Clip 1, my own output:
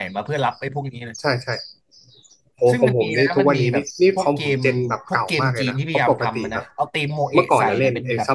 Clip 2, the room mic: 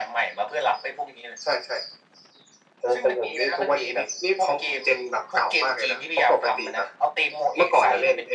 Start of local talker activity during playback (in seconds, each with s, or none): none